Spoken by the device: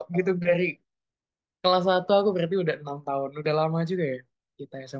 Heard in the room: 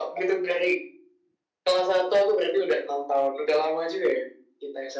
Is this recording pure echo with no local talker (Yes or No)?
Yes